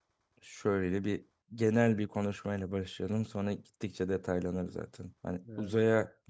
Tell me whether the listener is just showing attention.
Yes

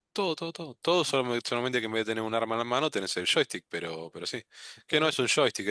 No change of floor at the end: Yes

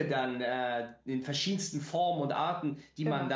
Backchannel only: Yes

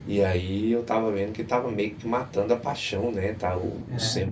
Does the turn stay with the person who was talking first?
Yes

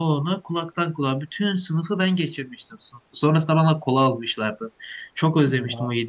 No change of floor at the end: Yes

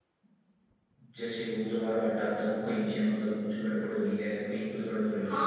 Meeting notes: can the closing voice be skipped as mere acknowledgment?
No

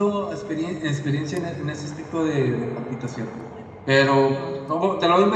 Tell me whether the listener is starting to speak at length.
No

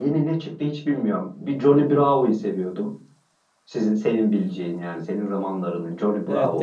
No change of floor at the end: No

